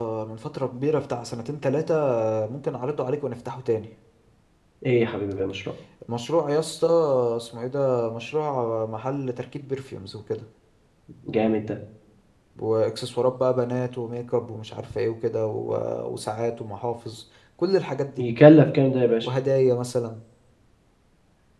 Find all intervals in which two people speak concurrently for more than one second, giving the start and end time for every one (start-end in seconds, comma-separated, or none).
none